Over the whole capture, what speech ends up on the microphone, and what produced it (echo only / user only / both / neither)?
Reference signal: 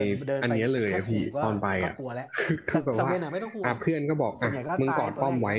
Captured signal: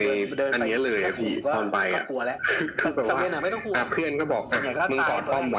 echo only